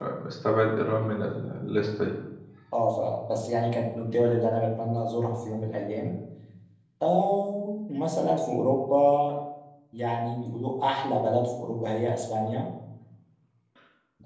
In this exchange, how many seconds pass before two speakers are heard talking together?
none

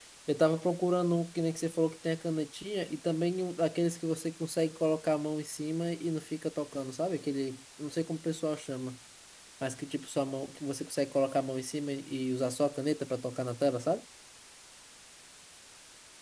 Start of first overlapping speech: none

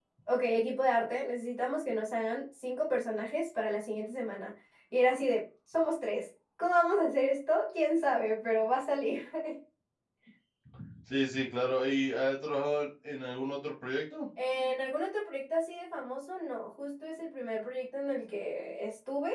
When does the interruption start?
none

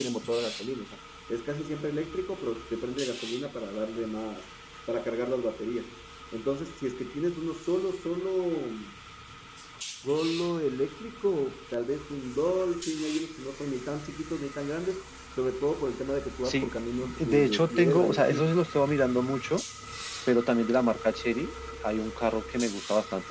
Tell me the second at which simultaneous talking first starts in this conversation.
16.4 s

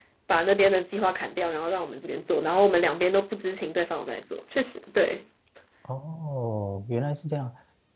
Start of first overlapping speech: none

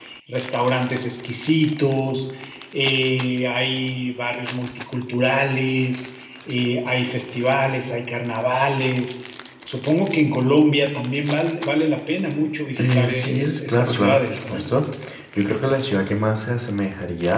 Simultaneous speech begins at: 12.8 s

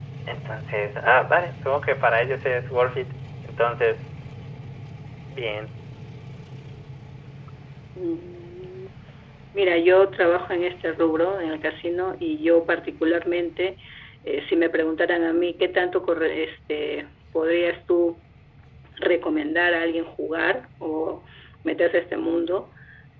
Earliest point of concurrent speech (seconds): none

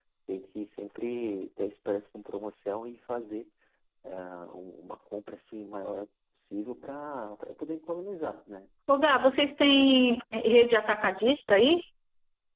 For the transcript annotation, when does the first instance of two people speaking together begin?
none

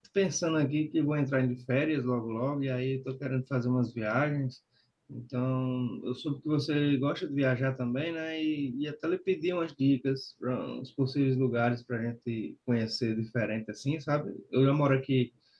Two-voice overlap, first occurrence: none

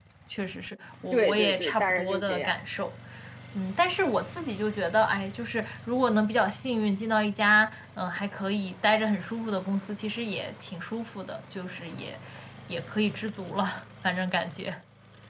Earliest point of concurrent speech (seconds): 1.1 s

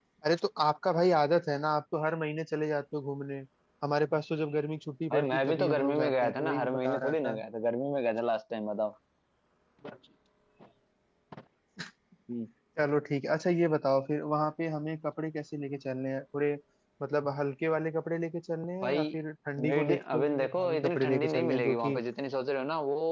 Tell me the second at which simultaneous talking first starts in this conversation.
5.1 s

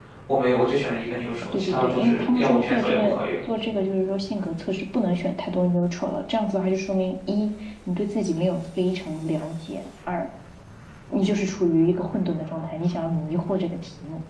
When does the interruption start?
1.5 s

